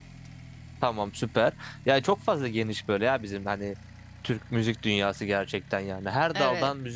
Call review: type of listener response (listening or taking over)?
listening